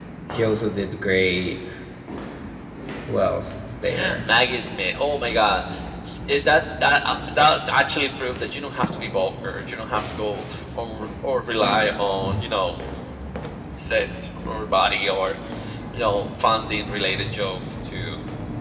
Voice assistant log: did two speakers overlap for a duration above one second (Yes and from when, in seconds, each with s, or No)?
No